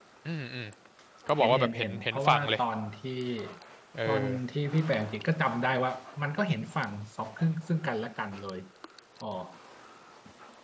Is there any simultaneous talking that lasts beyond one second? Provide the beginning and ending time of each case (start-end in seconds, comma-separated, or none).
1.4-2.6